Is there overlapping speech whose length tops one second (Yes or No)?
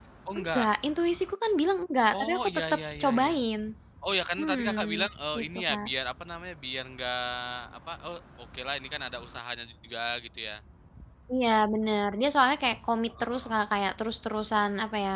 Yes